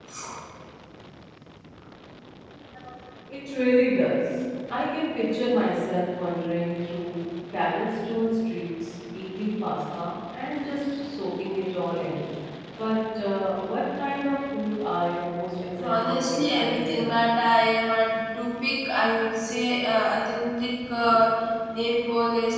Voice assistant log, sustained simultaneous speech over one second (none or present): present